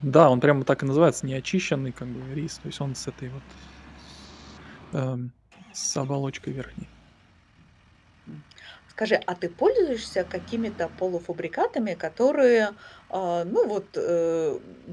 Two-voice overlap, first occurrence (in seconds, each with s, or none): none